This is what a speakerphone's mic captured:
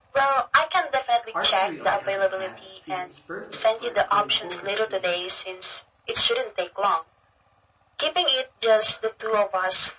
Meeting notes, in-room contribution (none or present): present